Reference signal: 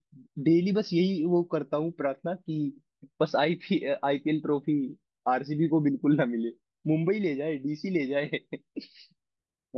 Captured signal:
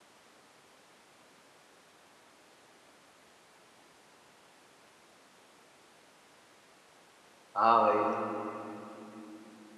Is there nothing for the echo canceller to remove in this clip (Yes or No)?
Yes